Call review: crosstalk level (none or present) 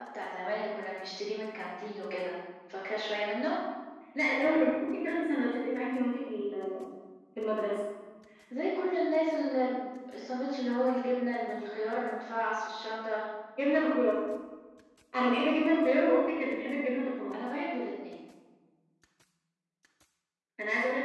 none